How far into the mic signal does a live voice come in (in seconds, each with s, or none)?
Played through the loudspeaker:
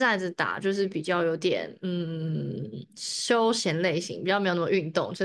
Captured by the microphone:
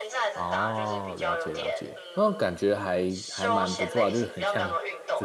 0.3 s